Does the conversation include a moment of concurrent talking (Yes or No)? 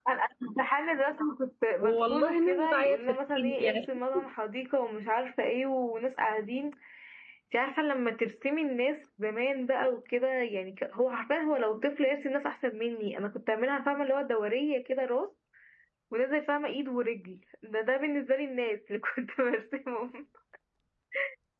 Yes